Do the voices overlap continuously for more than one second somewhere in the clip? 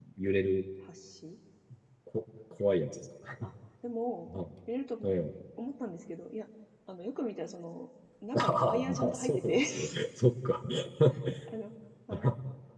Yes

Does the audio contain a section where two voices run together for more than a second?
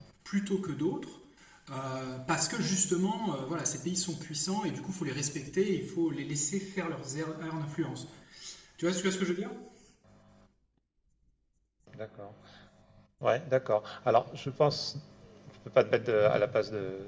No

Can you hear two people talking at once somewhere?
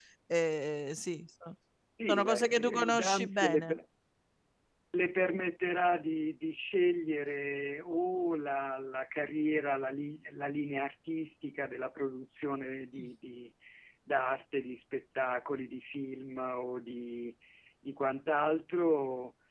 Yes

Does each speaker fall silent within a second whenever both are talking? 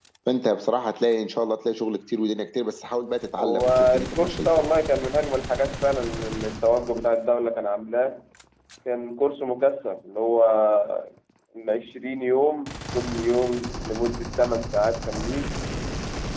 No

